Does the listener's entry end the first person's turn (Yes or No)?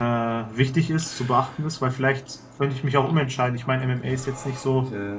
No